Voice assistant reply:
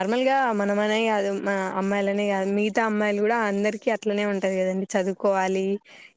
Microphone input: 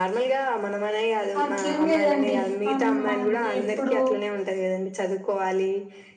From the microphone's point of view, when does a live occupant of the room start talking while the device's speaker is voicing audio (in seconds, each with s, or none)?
1.4 s